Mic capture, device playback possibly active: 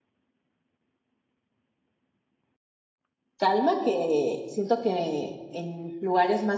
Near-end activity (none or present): present